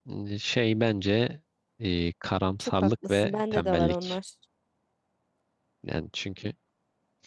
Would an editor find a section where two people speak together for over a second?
Yes, from 2.6 s

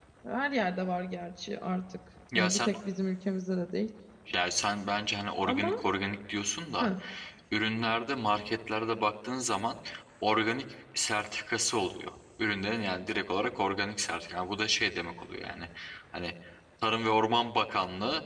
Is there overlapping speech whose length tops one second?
No

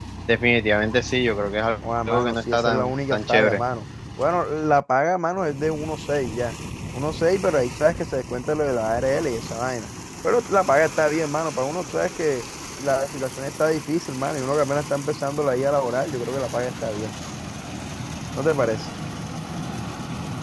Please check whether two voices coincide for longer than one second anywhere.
Yes, from 2.1 s

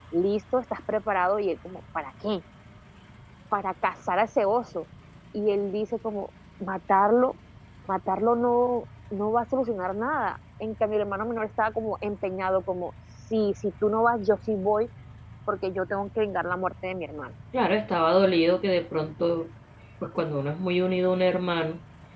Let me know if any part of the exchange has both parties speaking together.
No

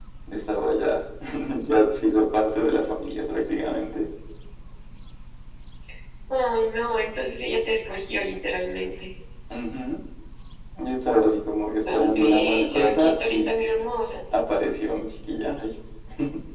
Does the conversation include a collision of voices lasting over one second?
Yes, from 11.8 s

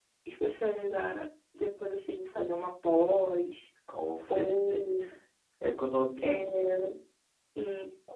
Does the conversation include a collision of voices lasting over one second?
No

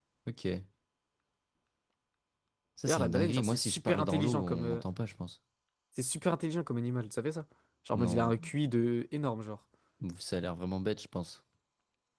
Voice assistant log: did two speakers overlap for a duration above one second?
Yes, from 2.9 s

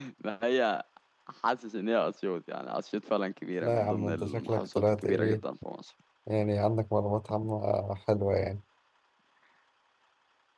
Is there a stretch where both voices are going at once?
Yes, from 3.6 s

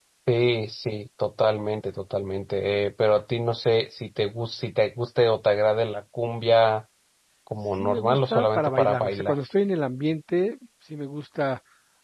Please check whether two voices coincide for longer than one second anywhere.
Yes, from 7.7 s

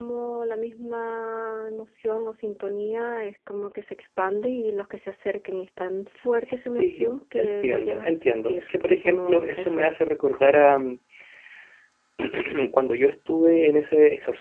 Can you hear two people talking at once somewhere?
Yes, from 6.7 s

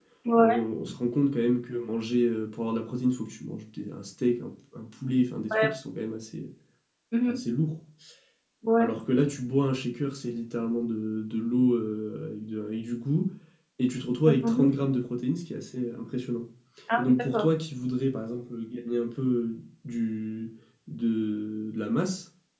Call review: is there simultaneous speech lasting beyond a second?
No

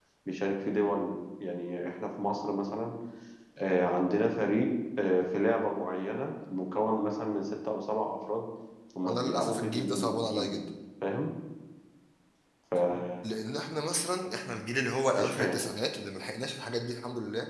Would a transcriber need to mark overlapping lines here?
Yes, from 9.1 s

